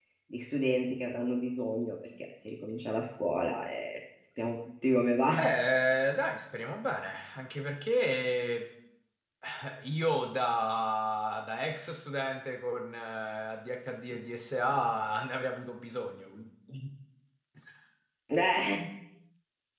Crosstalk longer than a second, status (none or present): none